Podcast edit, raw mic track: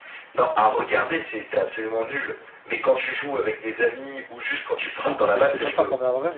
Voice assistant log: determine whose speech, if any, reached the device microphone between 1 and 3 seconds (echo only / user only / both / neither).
echo only